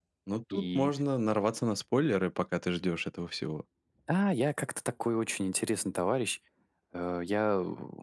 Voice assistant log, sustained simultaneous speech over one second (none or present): none